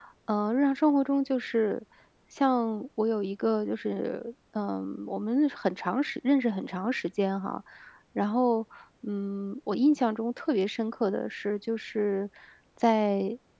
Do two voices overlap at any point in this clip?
No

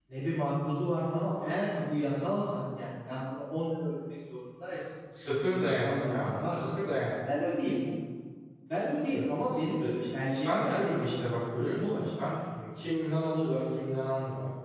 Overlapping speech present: Yes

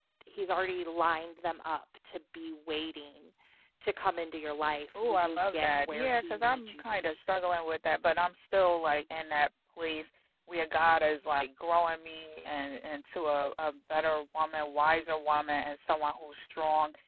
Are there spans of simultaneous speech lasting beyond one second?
Yes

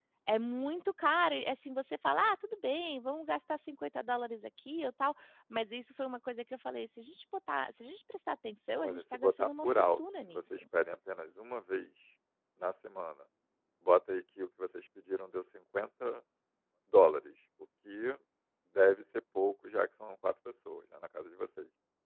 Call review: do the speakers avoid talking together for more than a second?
No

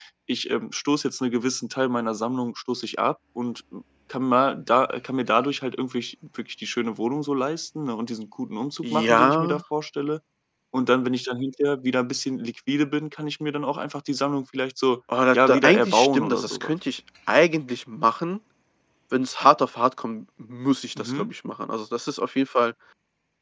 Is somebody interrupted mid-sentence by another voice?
Yes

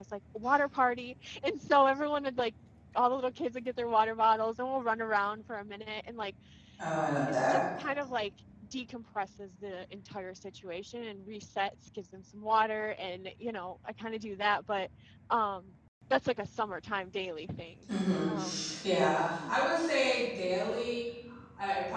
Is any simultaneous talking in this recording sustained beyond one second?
No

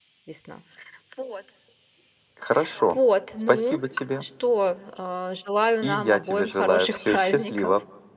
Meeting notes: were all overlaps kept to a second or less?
No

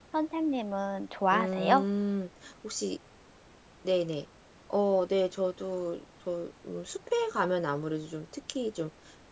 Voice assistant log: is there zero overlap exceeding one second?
Yes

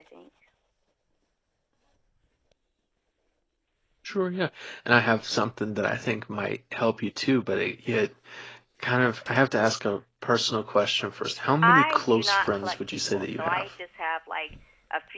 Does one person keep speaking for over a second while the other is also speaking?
Yes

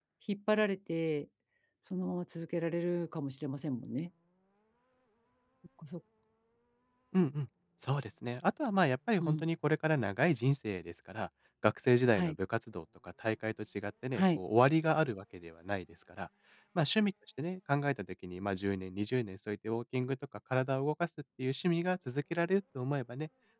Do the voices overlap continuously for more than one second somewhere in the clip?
No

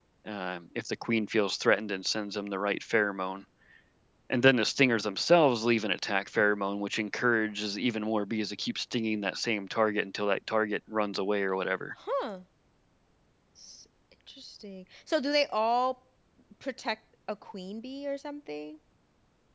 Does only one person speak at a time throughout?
Yes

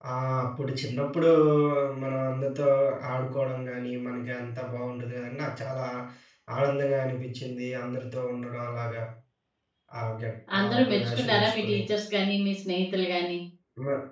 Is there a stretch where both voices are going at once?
Yes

